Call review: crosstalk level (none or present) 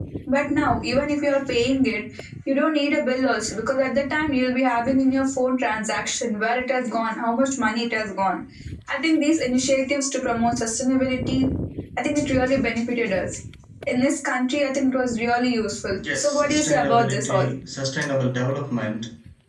present